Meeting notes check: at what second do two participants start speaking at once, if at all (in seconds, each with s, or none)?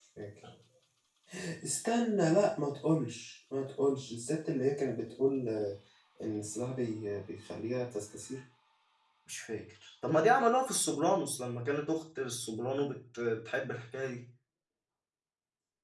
none